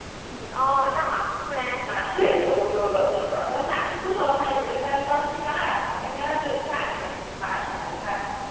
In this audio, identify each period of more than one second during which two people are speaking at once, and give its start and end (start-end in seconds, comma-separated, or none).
none